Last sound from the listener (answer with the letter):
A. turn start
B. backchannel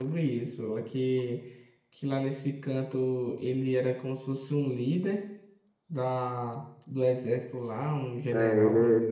A